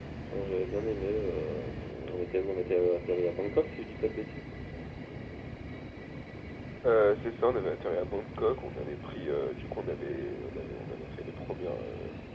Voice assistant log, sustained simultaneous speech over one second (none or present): none